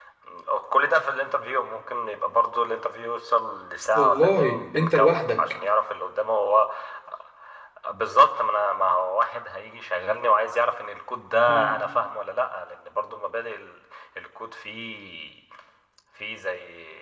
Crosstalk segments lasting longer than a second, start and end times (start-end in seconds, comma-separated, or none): 4.0-5.4